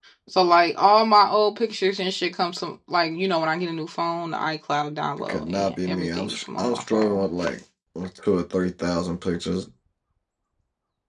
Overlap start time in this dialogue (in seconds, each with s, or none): 5.3 s